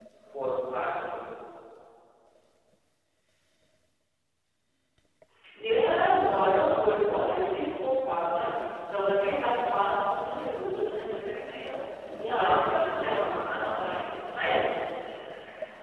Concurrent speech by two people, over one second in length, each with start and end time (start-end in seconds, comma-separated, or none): 12.2-14.0